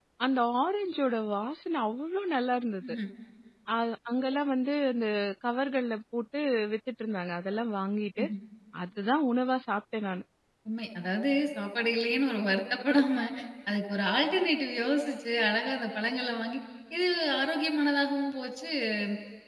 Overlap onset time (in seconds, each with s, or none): none